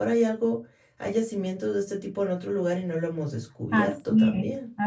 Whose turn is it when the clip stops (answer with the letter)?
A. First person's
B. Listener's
B